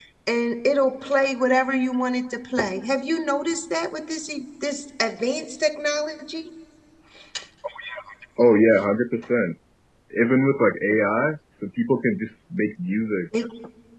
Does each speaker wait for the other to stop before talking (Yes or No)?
Yes